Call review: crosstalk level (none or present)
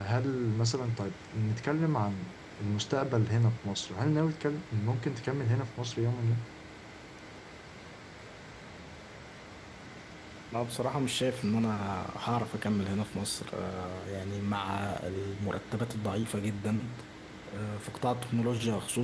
none